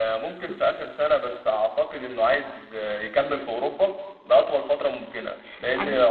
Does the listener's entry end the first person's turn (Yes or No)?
No